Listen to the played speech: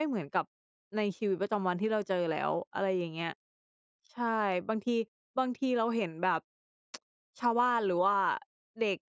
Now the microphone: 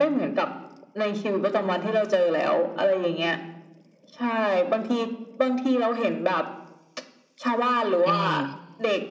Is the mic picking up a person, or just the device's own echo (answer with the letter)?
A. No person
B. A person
B